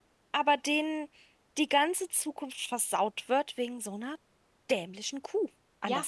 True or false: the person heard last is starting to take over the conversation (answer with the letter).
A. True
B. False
A